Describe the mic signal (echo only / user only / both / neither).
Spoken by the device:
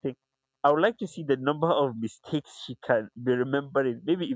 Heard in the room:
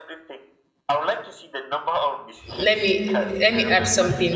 both